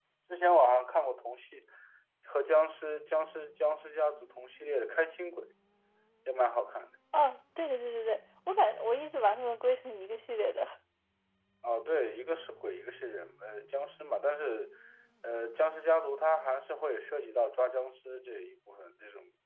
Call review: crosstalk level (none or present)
none